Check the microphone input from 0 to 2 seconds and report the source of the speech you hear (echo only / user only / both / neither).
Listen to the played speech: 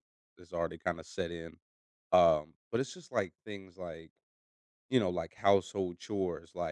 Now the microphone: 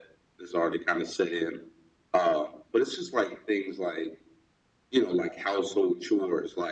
echo only